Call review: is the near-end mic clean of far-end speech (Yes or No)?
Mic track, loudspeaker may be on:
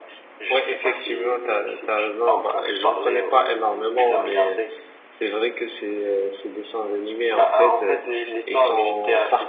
No